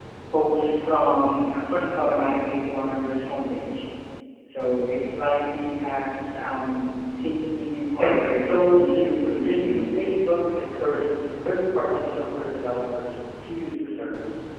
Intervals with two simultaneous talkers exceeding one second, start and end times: 8.0-9.9

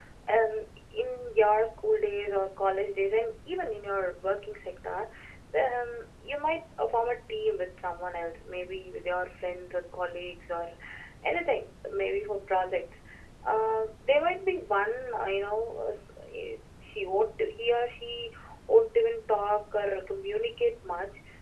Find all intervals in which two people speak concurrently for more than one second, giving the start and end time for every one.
none

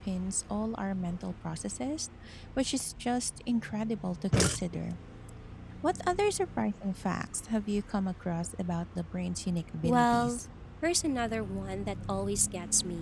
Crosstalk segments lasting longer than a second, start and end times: none

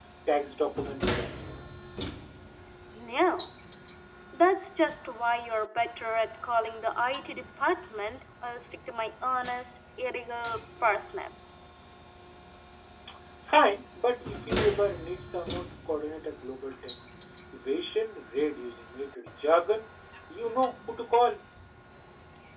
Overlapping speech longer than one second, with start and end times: none

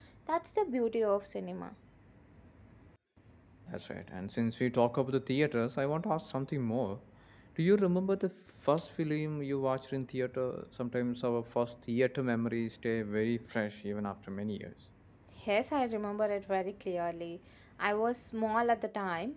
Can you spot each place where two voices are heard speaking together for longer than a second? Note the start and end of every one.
none

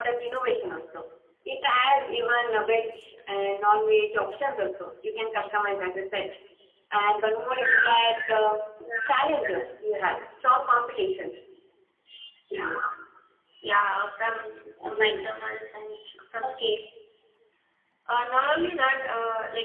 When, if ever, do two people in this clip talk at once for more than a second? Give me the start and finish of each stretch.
none

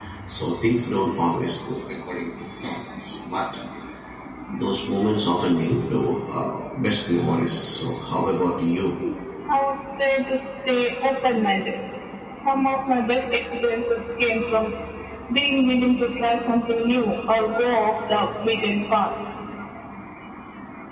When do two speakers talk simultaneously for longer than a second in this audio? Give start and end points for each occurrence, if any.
none

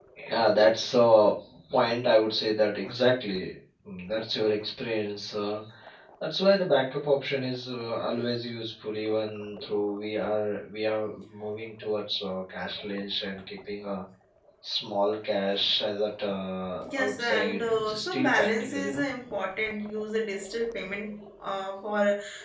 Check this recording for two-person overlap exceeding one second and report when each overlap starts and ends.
16.9-19.0

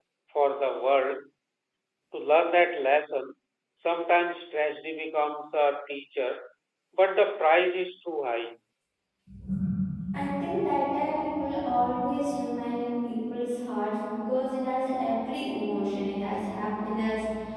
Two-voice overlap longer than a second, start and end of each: none

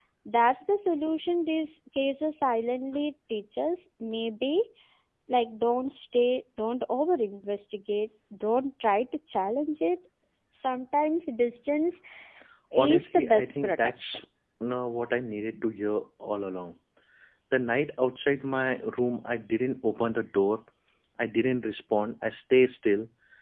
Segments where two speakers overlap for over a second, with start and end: 12.8-14.2

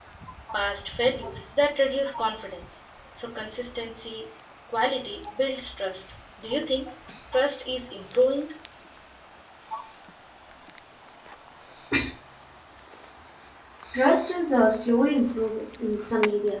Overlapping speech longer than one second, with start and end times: none

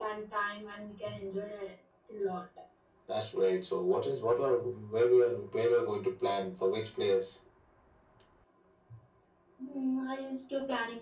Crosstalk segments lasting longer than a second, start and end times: none

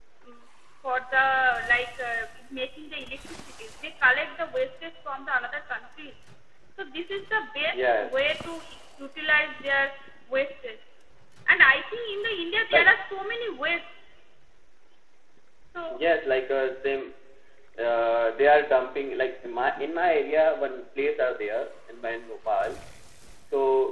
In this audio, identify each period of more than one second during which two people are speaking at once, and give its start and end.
none

